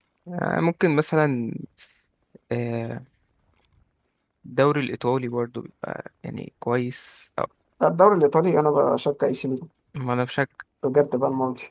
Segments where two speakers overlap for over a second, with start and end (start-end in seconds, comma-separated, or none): none